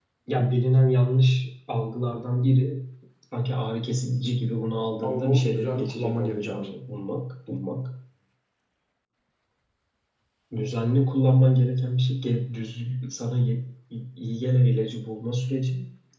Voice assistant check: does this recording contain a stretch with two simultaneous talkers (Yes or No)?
Yes